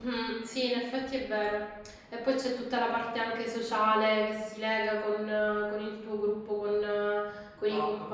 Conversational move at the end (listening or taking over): taking over